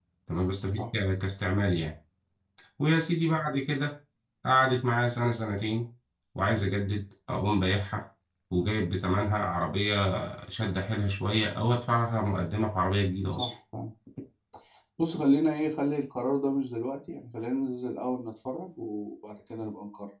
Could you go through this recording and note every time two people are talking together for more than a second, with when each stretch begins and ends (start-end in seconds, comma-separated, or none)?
none